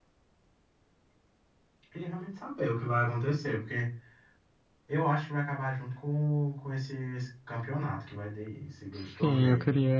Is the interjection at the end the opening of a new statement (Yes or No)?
Yes